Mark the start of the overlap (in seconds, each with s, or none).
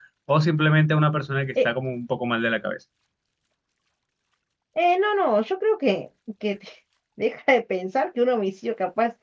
none